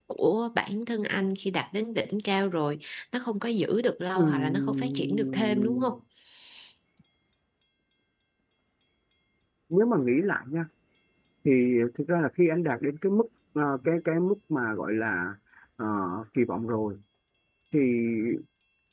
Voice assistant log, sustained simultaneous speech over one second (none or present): present